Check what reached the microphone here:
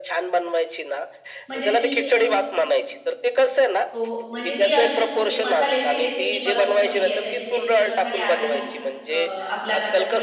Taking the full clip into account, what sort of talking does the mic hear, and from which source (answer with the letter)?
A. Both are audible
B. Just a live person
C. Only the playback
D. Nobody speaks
A